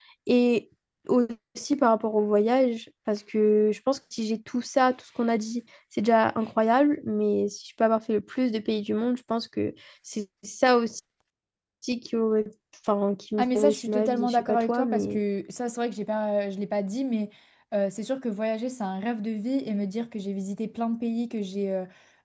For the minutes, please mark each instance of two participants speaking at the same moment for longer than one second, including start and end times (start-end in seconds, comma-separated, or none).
13.4-15.2